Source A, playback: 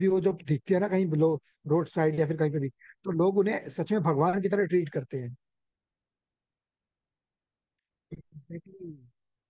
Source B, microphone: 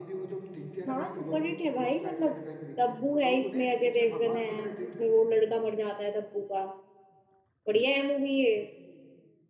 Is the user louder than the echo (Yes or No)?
Yes